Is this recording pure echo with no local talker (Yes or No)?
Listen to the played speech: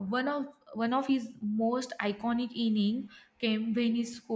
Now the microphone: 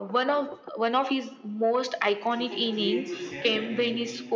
No